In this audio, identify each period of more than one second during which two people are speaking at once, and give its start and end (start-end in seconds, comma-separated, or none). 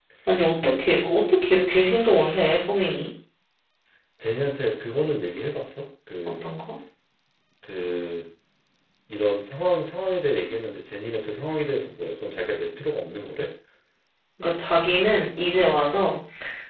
none